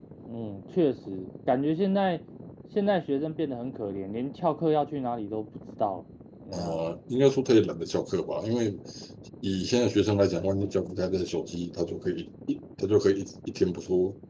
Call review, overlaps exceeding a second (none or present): none